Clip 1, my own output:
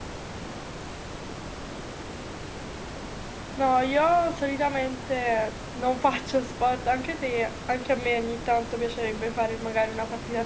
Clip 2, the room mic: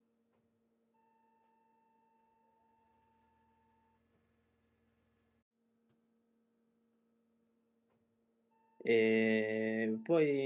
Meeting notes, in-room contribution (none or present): present